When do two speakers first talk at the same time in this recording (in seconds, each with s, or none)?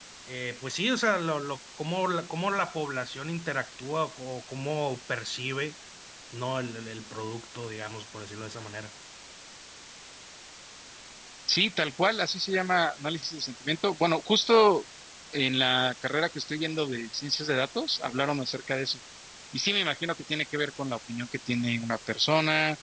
none